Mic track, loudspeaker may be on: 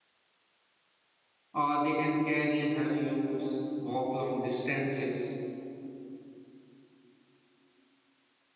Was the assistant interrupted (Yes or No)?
Yes